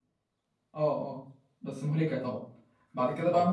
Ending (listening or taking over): listening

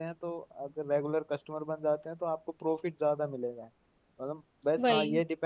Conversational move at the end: listening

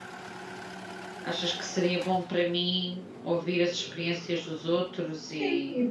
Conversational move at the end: taking over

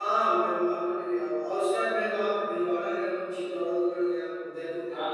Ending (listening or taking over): taking over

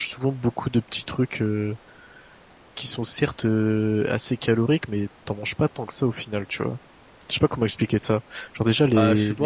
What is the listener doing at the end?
taking over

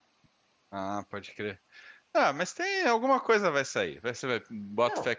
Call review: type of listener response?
listening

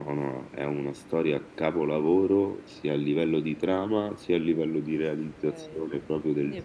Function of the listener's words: taking over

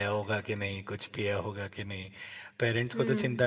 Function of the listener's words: listening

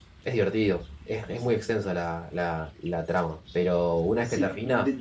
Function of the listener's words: taking over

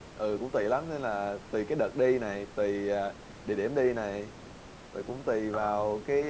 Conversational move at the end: listening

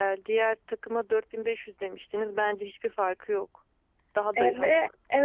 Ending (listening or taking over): taking over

